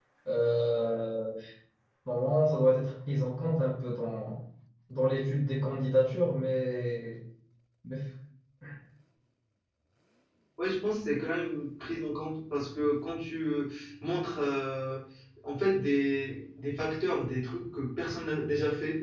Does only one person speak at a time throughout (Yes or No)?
Yes